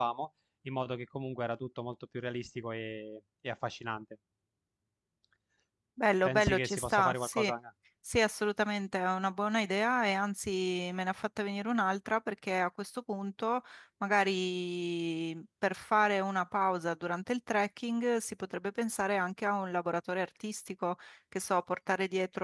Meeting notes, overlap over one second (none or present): present